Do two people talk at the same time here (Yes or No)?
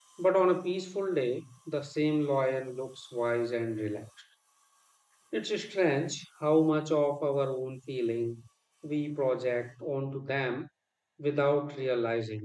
No